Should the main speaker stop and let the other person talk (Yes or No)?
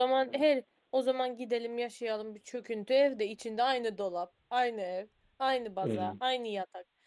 No